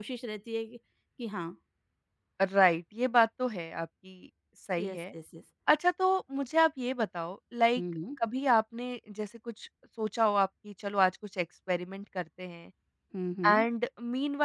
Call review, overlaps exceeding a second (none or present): none